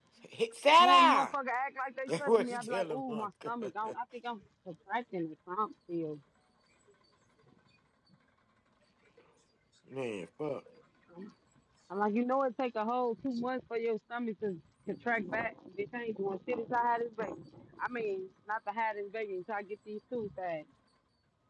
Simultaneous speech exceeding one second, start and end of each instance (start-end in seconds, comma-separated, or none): 2.1-3.5